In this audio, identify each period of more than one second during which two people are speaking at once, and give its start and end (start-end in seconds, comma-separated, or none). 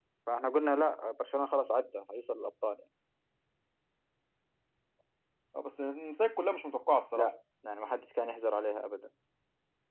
none